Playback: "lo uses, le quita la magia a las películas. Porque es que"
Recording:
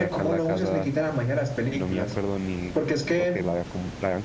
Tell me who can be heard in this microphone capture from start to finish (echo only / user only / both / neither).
both